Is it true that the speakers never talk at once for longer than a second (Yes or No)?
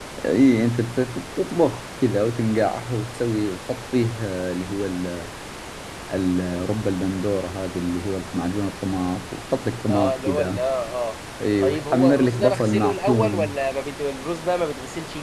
No